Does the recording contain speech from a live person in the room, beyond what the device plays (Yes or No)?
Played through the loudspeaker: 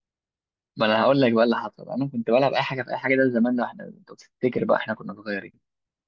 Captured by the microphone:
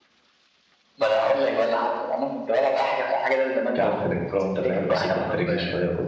Yes